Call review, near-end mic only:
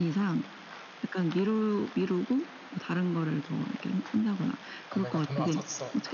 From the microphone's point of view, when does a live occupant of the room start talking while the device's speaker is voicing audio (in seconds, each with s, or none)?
4.9 s